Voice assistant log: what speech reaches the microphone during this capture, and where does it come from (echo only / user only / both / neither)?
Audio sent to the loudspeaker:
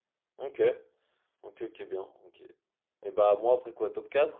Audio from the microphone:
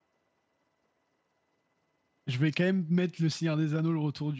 user only